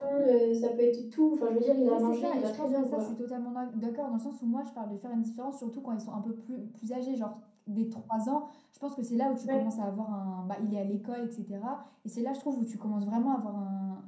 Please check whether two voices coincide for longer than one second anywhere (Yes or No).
Yes